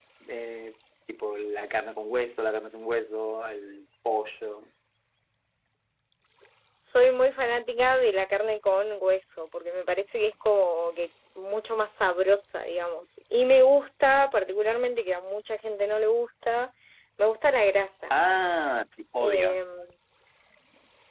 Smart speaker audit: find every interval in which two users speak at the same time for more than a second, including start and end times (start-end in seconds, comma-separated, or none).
none